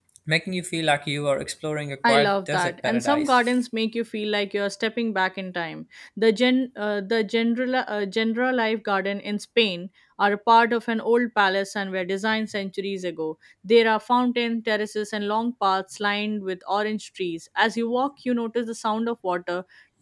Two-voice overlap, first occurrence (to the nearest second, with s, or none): 2 s